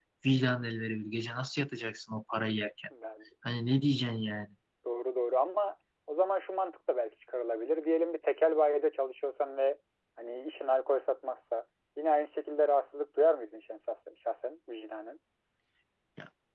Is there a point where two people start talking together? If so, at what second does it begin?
none

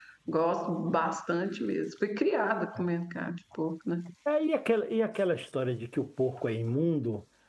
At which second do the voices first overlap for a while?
none

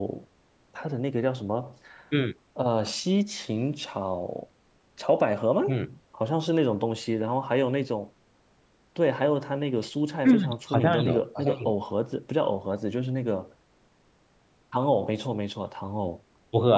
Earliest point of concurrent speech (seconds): 10.2 s

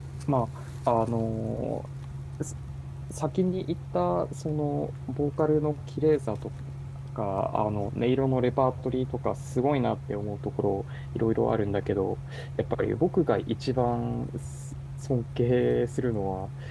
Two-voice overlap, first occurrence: none

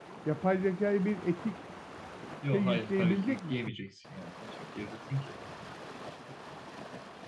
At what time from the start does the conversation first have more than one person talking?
2.5 s

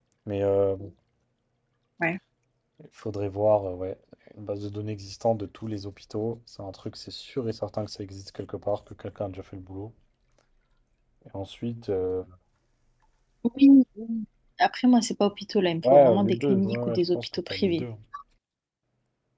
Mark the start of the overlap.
15.8 s

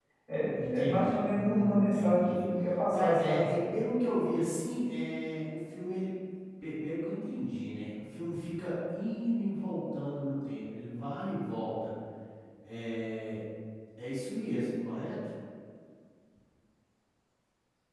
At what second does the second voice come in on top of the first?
0.7 s

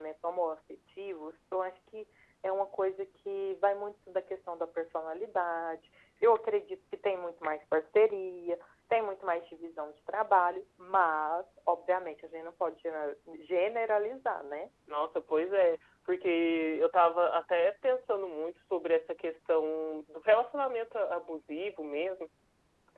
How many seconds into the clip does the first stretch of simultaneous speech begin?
none

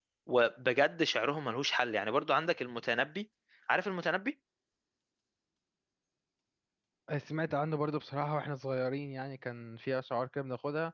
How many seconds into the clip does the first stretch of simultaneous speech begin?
none

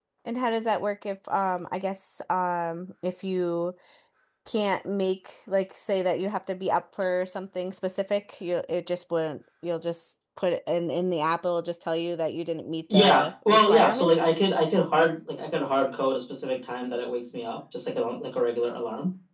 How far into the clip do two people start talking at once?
12.9 s

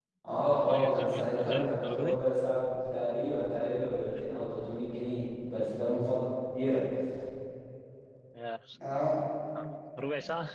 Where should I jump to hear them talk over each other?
0.6 s

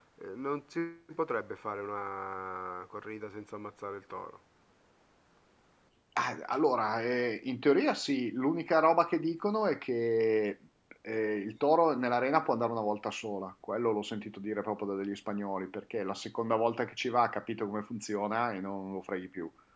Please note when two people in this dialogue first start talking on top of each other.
none

